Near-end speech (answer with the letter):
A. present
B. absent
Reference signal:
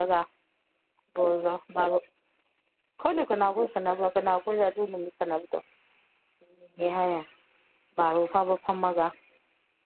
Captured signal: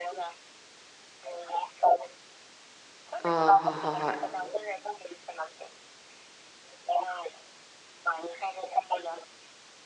A